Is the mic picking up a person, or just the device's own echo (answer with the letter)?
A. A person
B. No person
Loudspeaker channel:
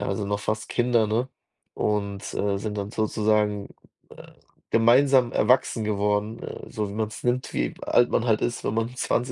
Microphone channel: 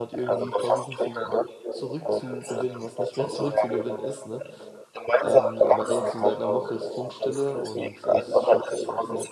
A